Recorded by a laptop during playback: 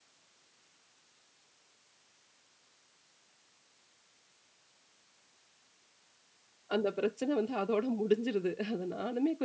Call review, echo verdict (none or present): none